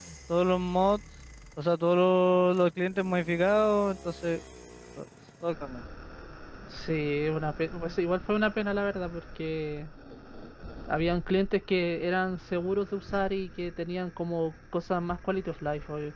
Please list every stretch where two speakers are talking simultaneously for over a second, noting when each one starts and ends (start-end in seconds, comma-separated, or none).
none